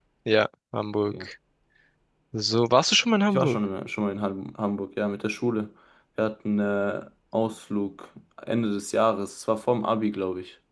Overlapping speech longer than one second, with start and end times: none

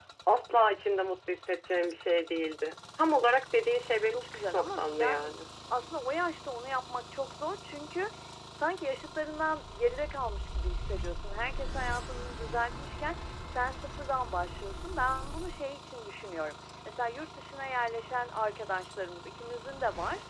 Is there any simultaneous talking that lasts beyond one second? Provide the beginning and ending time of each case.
4.1-5.3

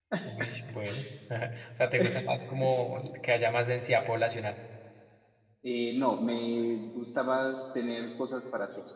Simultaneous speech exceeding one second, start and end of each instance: none

